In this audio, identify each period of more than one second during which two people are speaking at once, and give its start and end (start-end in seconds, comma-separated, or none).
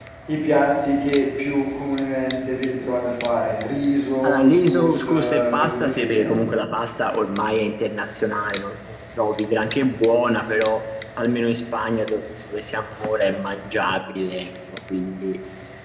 4.2-6.2